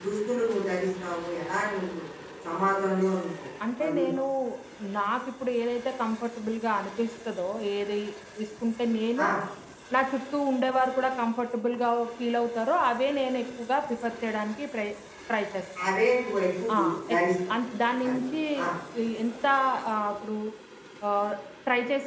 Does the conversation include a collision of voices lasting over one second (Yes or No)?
No